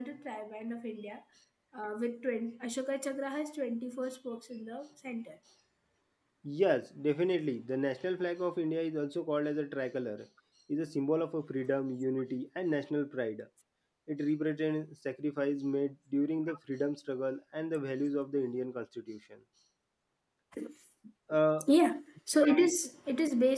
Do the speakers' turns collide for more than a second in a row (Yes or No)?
No